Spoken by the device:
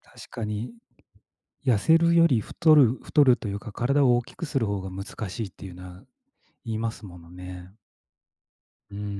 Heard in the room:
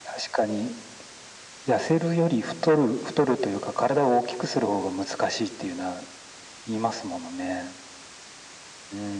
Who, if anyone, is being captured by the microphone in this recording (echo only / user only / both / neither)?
echo only